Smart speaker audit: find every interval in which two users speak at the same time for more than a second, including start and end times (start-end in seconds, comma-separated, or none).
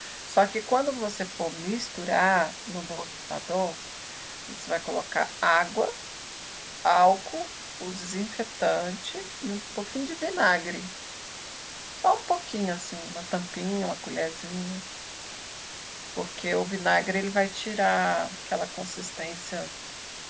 none